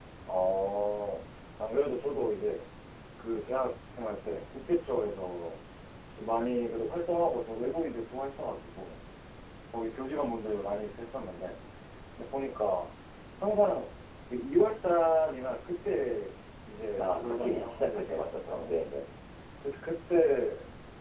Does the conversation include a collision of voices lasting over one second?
Yes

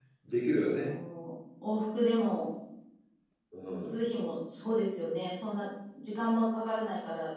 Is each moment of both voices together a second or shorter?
Yes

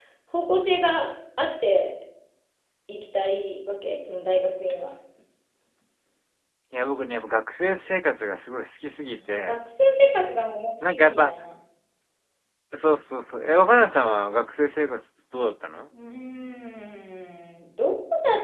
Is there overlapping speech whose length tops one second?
No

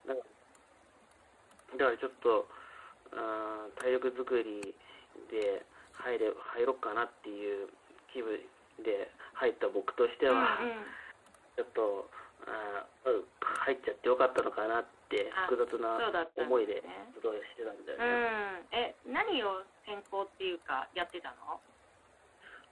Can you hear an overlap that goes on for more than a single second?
Yes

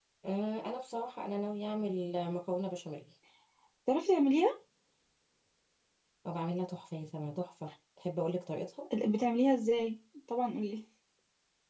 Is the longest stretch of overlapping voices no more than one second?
Yes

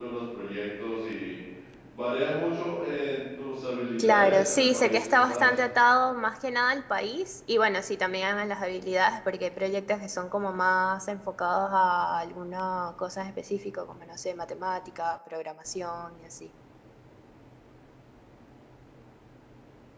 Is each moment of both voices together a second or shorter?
No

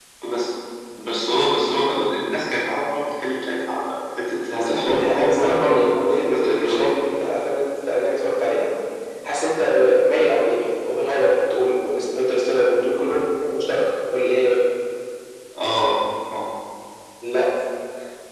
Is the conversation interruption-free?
No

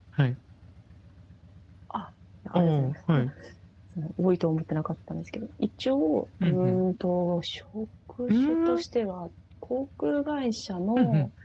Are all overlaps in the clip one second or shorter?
Yes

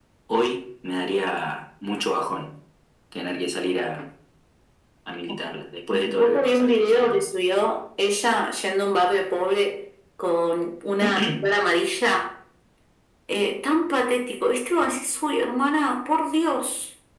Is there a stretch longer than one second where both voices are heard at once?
Yes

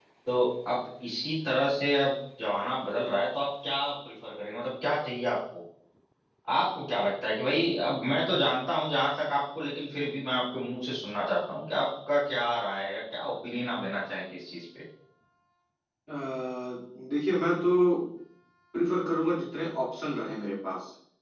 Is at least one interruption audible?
No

